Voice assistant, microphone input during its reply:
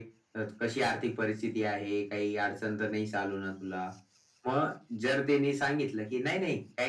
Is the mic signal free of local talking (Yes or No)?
Yes